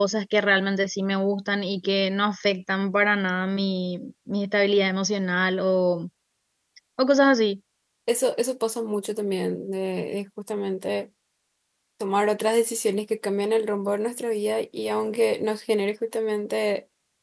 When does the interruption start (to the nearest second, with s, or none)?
none